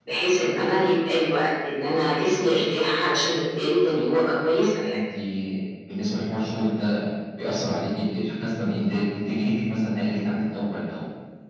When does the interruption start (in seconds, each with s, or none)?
none